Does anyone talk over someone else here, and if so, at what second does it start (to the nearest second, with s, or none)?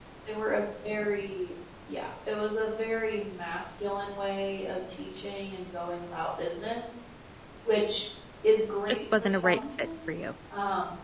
9 s